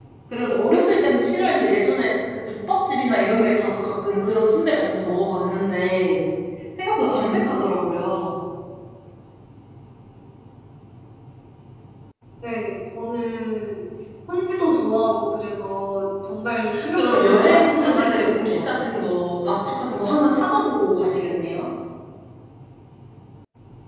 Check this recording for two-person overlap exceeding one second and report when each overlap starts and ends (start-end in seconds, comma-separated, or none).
16.9-18.9